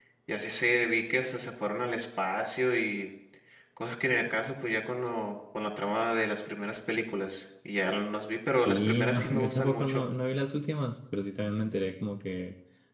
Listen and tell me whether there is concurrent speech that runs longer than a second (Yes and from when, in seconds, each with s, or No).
Yes, from 8.6 s